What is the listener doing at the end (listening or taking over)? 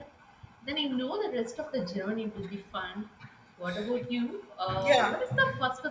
listening